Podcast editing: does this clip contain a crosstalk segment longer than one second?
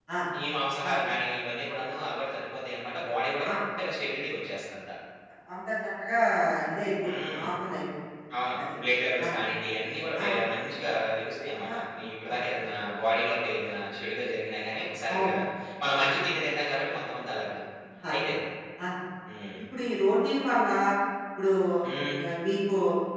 No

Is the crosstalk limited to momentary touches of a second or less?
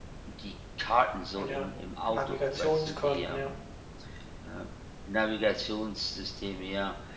No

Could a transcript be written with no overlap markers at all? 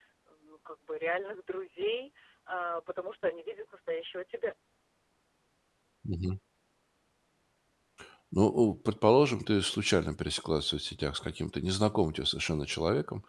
Yes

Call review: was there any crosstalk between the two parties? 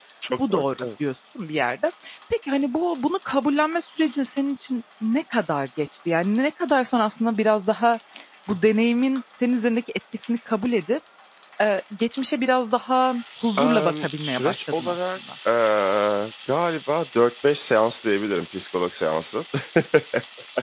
Yes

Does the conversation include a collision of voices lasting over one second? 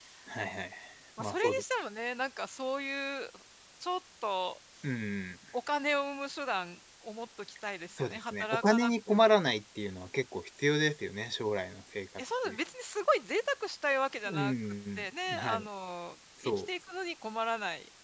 Yes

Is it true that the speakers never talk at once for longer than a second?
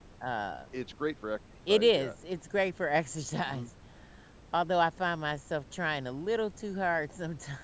Yes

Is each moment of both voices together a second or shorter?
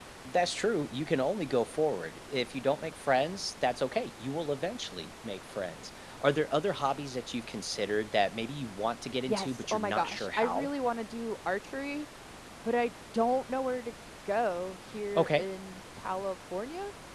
No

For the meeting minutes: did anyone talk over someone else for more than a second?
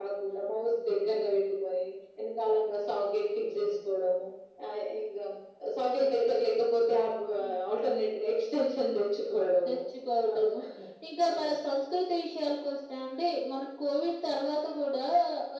No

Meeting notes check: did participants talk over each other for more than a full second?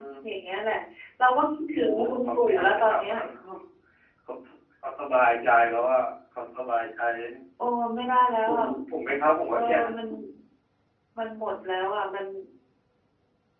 Yes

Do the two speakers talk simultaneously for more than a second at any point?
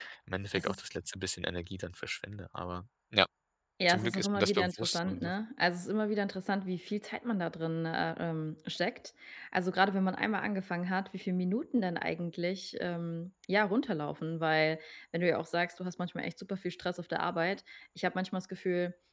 Yes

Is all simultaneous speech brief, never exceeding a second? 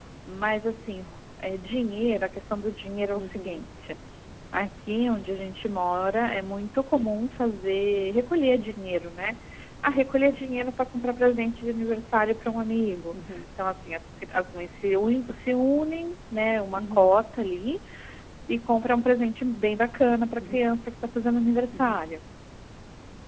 Yes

